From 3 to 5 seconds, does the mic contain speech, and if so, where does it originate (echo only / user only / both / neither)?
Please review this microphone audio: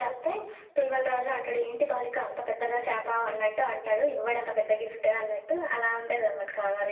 echo only